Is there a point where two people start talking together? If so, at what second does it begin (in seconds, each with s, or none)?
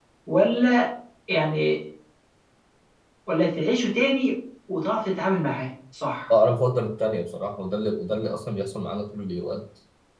none